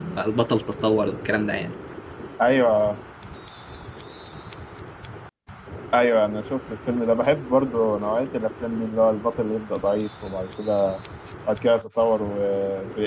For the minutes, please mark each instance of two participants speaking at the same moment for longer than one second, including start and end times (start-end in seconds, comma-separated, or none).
none